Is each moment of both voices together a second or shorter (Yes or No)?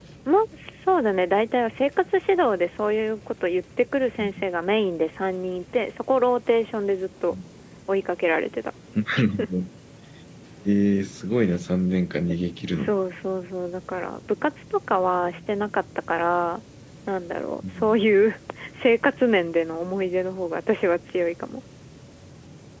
Yes